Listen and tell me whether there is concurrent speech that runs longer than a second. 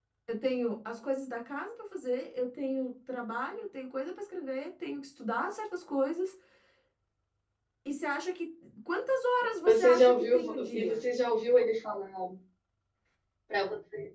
Yes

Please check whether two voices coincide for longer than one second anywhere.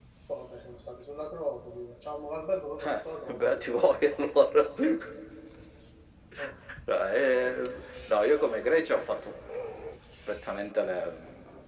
Yes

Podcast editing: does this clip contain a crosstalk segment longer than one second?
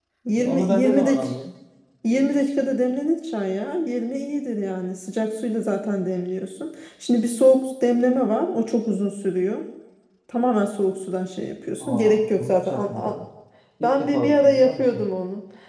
Yes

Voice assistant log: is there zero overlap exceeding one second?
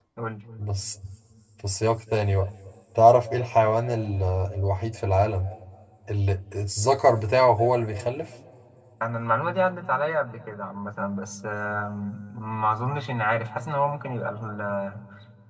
Yes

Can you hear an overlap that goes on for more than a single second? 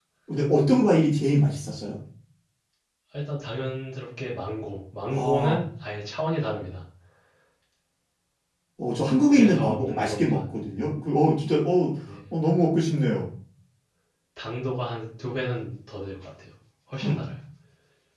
Yes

